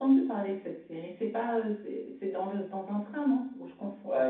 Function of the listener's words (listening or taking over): taking over